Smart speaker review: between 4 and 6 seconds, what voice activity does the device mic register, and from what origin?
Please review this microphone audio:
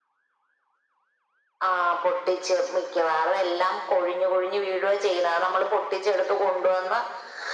echo only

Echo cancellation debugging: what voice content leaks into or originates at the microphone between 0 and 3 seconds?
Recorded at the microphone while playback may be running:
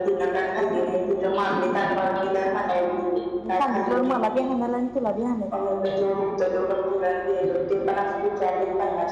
echo only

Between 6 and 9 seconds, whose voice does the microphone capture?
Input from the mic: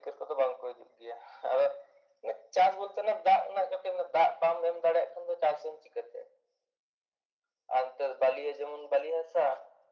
echo only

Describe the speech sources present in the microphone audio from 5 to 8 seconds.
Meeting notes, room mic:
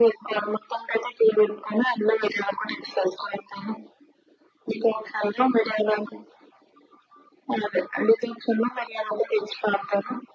echo only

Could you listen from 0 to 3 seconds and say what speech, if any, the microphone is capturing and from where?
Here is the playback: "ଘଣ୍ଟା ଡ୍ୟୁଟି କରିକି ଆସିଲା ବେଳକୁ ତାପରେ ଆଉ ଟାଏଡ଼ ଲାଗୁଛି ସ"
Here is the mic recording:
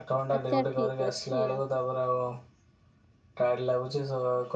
both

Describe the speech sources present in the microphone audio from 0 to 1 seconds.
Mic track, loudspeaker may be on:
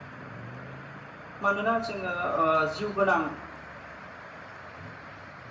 neither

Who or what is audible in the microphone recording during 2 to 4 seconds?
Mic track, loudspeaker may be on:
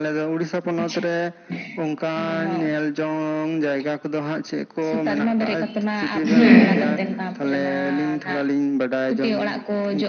echo only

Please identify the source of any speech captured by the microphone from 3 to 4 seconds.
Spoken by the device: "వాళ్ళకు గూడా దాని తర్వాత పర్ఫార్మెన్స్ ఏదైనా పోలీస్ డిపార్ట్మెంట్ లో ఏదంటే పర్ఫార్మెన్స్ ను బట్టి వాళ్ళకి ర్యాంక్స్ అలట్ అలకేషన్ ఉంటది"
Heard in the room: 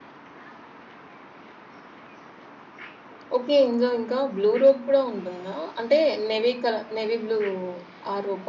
user only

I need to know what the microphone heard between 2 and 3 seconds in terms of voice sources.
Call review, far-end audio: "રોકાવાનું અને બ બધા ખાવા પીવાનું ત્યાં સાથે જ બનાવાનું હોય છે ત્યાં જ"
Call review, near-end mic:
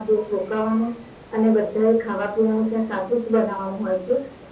echo only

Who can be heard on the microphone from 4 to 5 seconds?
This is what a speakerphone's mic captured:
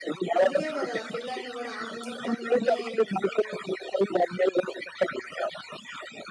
echo only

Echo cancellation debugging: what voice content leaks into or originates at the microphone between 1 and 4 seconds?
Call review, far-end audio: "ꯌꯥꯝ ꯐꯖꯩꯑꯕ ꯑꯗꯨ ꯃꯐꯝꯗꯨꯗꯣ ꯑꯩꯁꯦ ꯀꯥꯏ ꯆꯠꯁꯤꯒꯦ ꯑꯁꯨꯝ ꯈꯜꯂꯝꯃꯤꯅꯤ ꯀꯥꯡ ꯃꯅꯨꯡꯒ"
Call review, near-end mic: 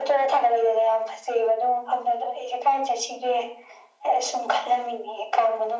echo only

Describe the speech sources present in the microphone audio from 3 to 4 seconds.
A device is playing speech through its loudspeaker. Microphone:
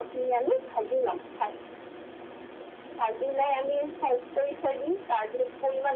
echo only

